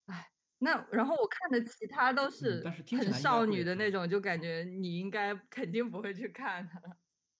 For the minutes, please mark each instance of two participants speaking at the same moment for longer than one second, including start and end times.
2.4-3.8

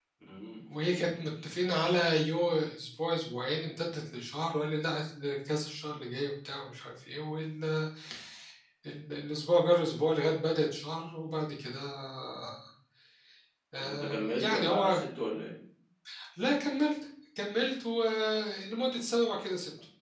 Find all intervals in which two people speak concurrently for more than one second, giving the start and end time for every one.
13.7-15.0

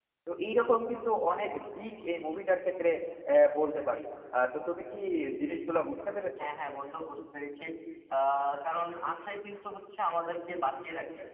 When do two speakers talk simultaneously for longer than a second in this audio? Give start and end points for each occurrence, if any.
none

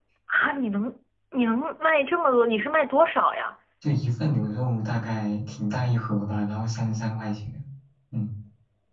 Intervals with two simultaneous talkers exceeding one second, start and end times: none

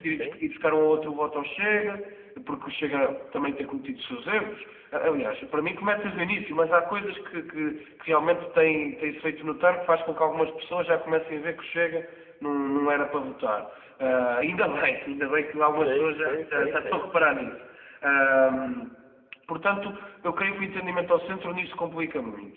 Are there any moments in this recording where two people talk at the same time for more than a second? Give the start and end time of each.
15.7-17.0

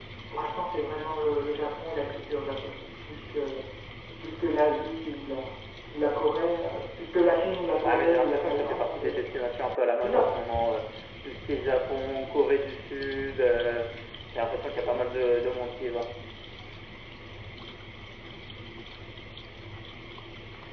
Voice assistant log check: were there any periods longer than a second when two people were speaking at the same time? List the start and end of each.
7.8-9.2

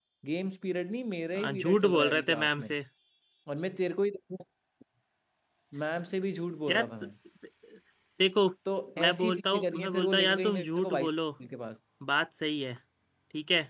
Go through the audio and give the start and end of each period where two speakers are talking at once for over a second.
1.4-2.7, 9.0-11.1

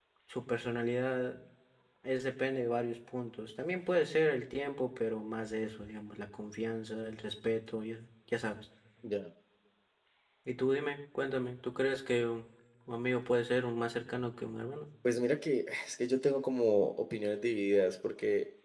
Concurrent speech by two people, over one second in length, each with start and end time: none

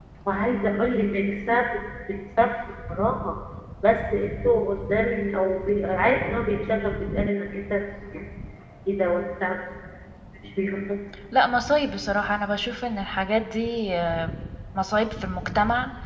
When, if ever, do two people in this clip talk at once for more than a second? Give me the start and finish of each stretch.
none

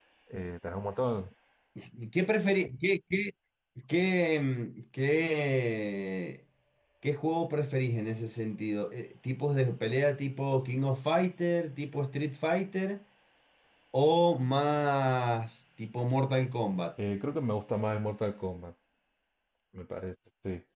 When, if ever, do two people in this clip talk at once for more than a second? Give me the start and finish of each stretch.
none

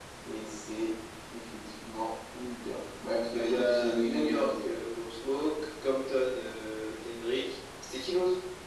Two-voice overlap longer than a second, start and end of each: 3.3-4.5

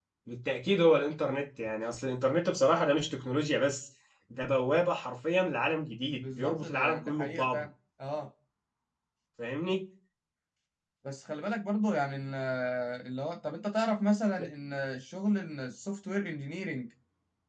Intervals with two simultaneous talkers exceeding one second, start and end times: 6.2-7.7

